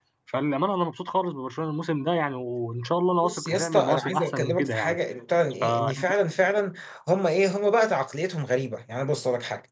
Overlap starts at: 3 s

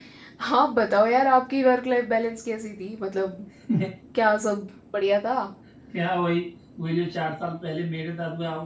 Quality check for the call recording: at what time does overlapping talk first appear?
none

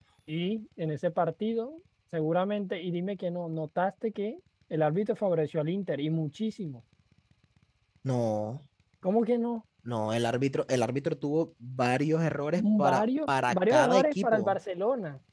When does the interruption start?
13 s

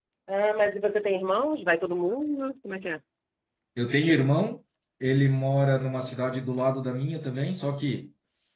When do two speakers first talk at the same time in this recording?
none

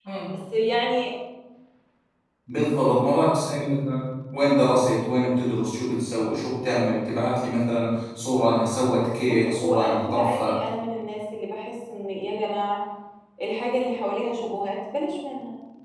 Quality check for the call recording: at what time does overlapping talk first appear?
9 s

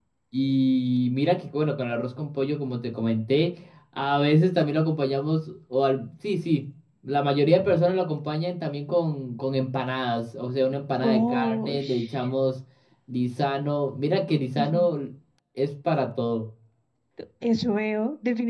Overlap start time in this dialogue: 11 s

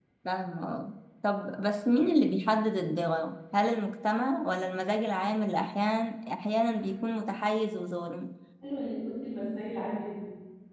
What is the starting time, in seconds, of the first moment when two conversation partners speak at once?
none

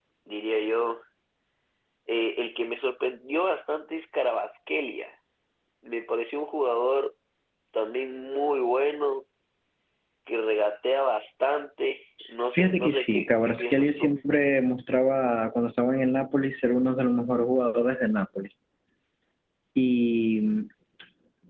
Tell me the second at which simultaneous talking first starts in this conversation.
13 s

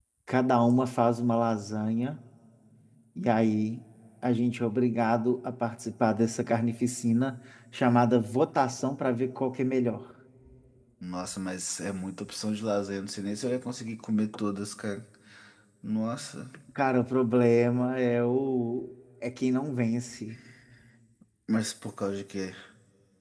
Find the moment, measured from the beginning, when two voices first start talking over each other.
none

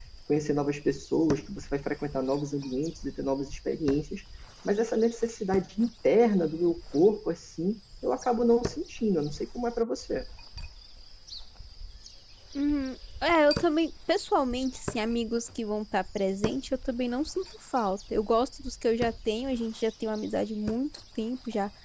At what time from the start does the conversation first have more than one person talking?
none

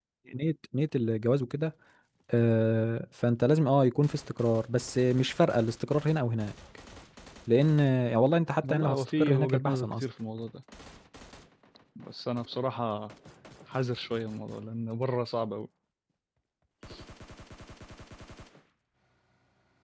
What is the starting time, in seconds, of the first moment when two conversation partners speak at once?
9 s

